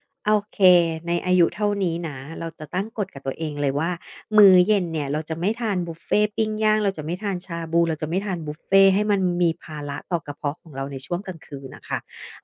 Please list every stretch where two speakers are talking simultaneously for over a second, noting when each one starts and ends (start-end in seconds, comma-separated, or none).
none